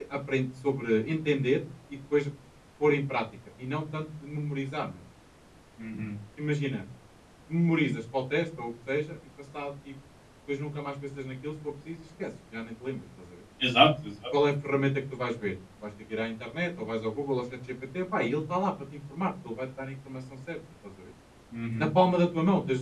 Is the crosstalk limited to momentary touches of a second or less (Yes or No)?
Yes